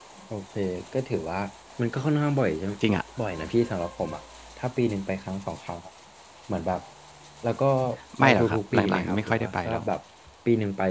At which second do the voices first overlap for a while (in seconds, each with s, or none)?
8.2 s